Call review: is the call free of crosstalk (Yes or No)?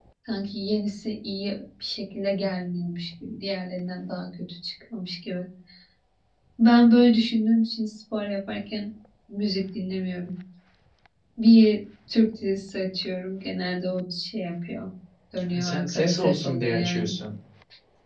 No